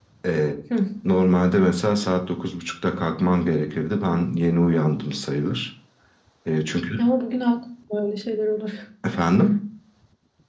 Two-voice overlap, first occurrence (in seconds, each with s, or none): none